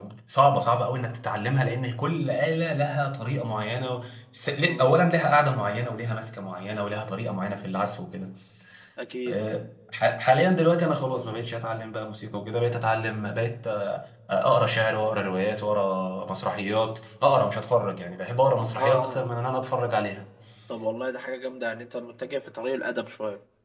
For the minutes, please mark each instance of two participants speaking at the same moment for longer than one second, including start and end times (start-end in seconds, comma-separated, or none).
none